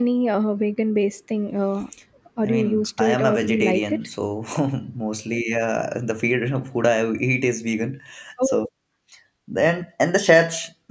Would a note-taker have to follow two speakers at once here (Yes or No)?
Yes